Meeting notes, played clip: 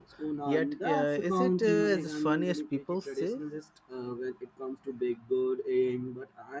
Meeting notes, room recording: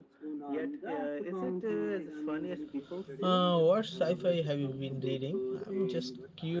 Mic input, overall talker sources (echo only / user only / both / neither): both